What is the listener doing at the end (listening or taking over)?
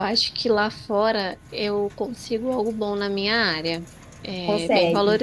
listening